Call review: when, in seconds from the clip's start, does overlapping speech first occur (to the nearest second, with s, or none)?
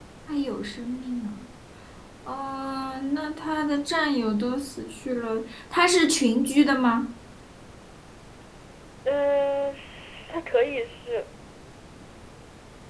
none